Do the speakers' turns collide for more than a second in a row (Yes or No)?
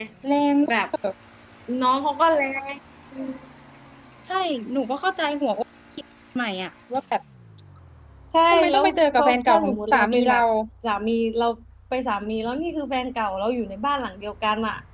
Yes